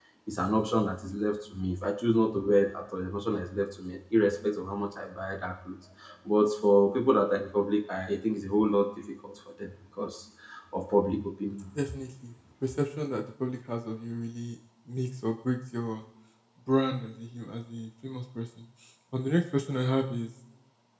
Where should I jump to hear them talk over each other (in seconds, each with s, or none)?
none